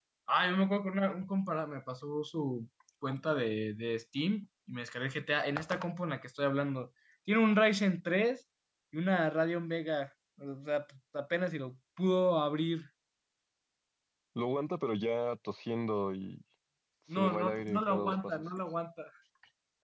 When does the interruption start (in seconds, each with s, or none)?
17.1 s